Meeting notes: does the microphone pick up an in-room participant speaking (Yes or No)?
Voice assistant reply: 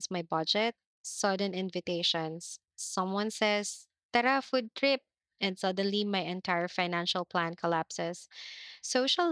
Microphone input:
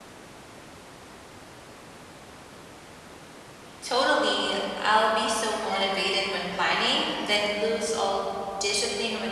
Yes